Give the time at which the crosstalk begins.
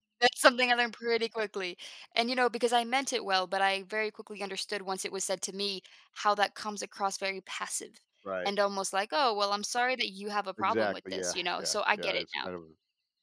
10.6 s

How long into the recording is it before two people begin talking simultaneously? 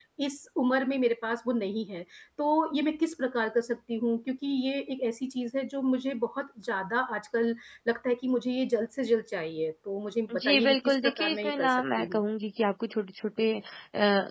10.3 s

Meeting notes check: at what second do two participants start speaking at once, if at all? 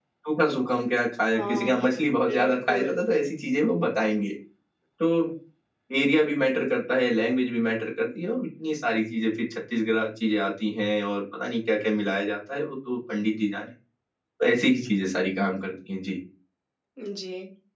1.3 s

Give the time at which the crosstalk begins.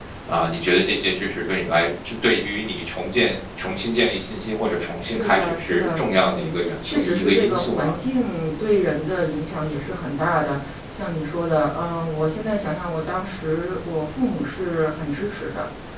4.8 s

